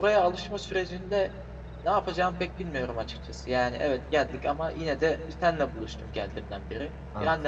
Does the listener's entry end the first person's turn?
No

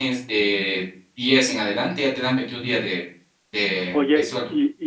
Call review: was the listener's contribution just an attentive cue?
No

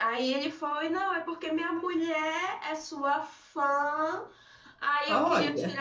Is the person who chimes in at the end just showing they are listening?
Yes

